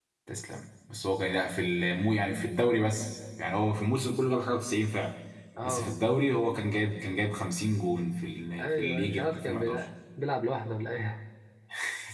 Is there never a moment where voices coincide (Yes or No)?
No